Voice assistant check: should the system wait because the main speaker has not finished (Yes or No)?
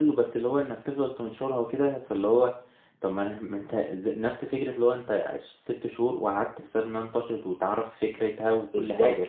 No